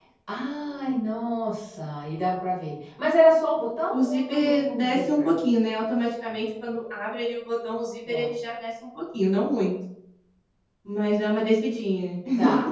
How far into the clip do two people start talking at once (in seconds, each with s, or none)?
3.9 s